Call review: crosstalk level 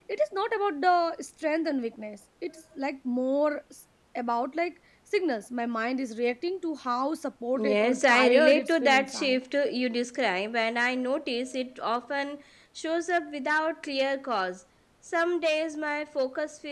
present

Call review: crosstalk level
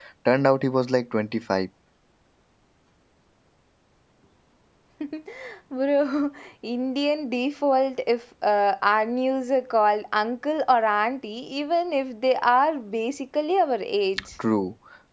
none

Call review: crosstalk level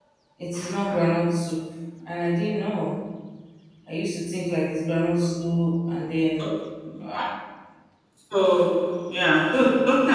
none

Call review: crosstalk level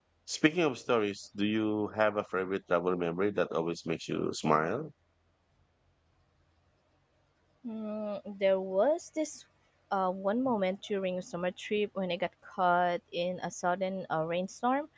none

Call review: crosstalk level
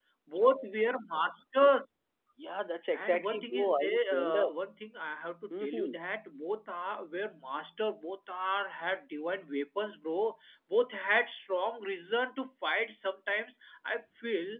present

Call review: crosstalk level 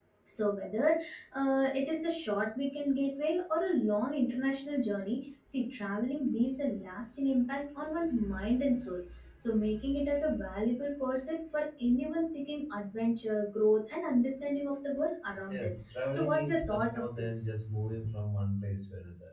present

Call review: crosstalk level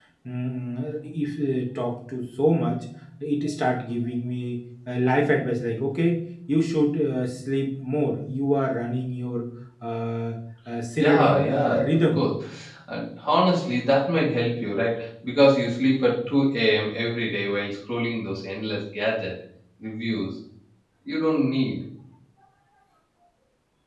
present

